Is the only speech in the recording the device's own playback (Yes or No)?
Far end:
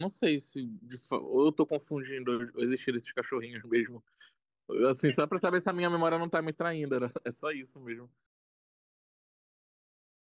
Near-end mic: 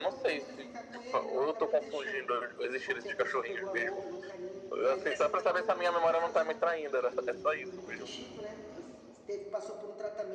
No